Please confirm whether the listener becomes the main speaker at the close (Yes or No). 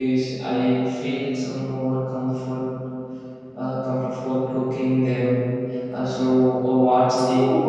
Yes